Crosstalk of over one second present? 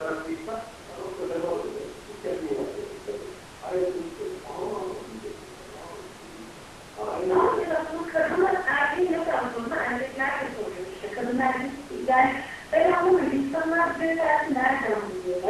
No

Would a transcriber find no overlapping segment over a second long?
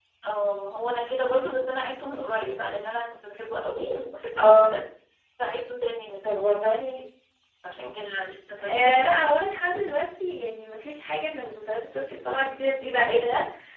Yes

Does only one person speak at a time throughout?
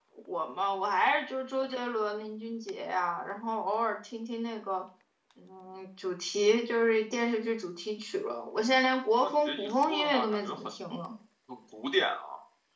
No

